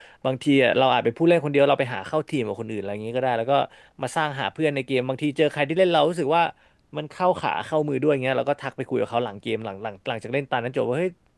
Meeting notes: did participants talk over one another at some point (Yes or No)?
No